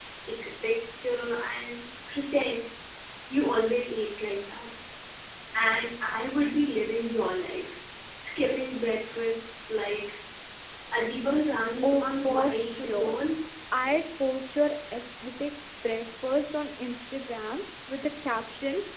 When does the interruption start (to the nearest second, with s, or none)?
12 s